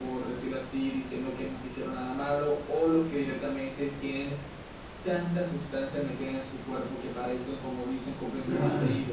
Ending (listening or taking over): taking over